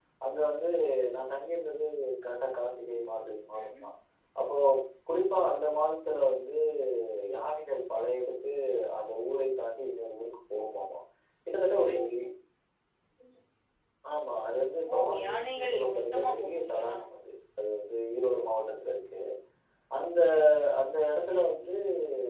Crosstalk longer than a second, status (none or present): present